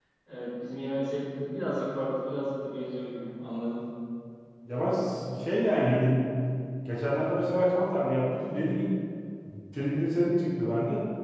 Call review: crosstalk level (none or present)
none